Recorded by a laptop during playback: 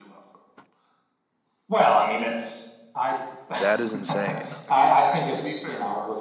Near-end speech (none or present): present